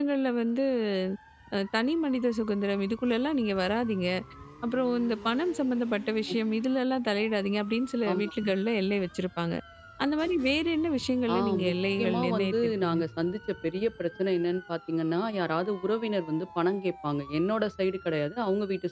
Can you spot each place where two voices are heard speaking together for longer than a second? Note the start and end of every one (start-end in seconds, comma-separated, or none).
11.3-13.0